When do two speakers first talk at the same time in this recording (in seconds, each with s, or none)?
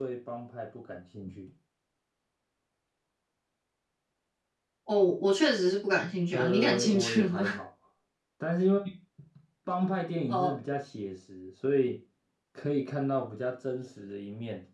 6.3 s